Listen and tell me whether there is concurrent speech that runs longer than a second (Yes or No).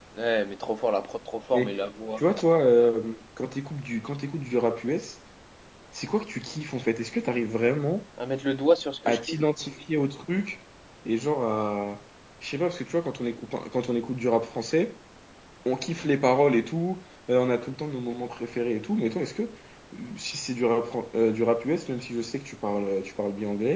No